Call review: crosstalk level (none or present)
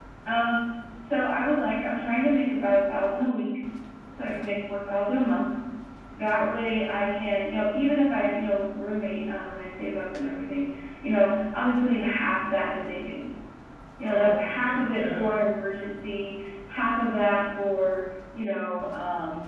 present